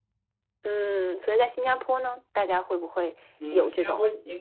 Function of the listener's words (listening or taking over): taking over